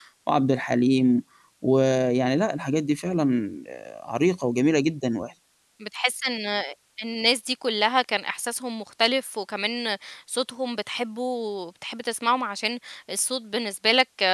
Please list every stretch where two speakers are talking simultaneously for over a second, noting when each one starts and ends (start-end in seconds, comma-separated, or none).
none